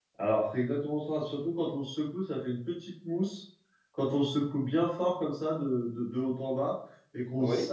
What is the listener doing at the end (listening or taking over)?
listening